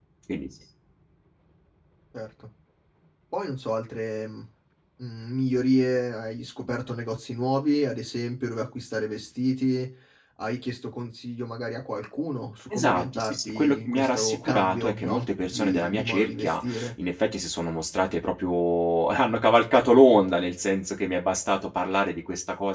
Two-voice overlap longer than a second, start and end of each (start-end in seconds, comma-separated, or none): 12.7-16.9